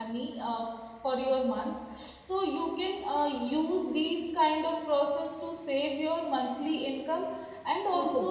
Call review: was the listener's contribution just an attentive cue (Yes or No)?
Yes